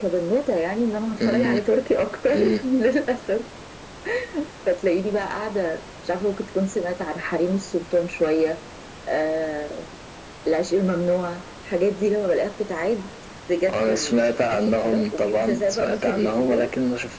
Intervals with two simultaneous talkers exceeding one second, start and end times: 13.7-16.7

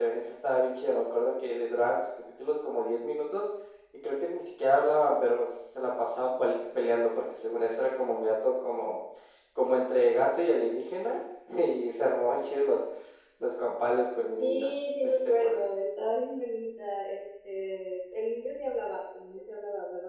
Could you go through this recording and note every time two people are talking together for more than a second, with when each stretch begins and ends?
14.2-15.7

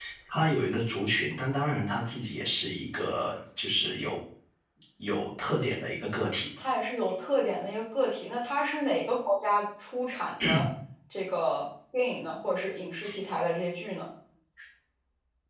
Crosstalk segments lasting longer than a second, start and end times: none

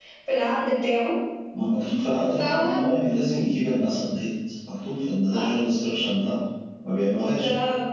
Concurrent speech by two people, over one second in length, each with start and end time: none

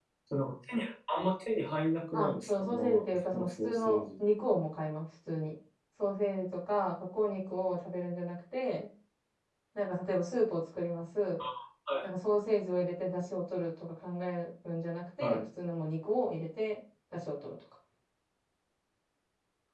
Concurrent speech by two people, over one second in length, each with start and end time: 2.1-4.0

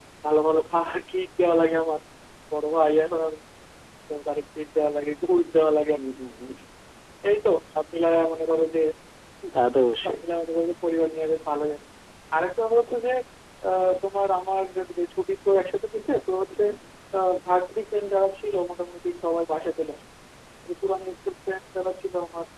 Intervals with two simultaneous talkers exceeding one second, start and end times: none

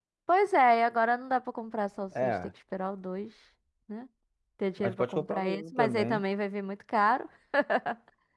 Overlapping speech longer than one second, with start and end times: 4.8-6.2

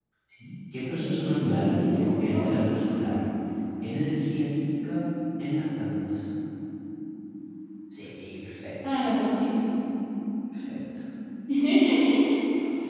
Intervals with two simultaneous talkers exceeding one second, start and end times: 1.0-2.5

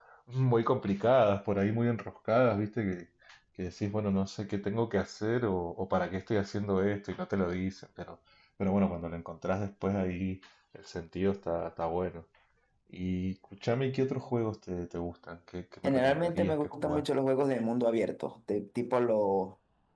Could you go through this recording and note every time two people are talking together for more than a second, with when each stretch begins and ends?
15.8-17.0

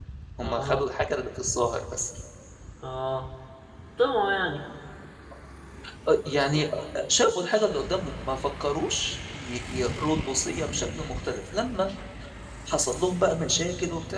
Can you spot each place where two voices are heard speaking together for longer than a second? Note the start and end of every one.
none

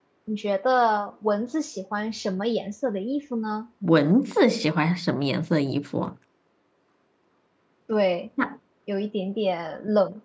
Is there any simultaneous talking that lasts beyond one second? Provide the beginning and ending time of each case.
none

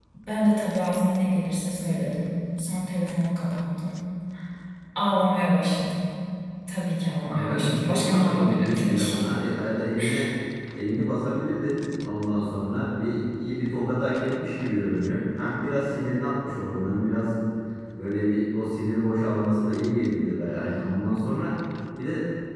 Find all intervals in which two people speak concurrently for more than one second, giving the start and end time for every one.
7.3-9.2

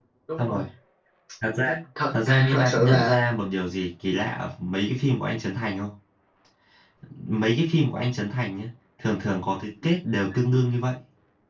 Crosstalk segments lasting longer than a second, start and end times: 2.1-3.3

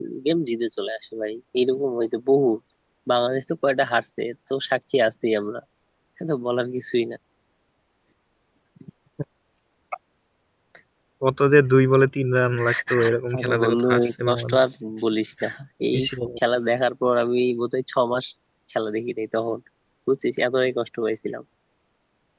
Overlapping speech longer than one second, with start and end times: 13.4-14.6

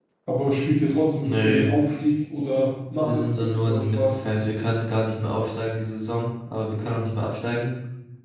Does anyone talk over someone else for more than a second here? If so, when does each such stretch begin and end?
3.0-4.2

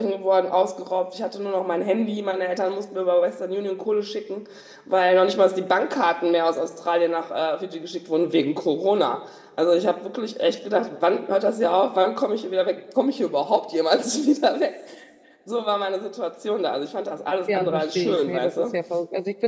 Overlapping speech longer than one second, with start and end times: 17.5-18.8

